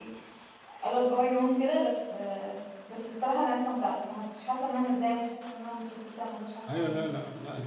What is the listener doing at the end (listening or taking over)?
taking over